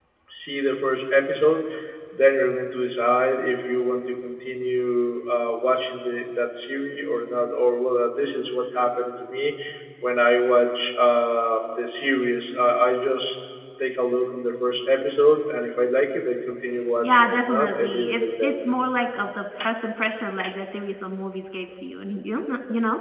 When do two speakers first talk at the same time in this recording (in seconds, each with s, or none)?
16.8 s